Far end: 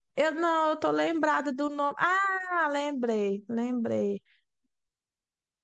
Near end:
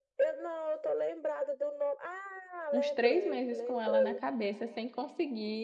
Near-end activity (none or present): present